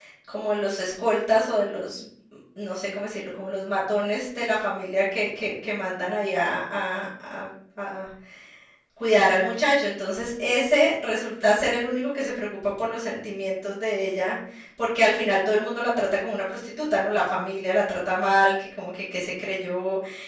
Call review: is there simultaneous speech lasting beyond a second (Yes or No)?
No